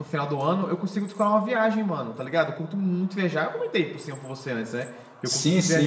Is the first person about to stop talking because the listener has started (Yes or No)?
Yes